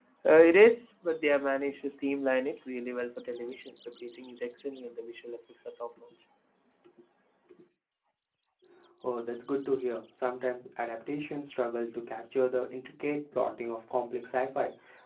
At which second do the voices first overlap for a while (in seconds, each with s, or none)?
none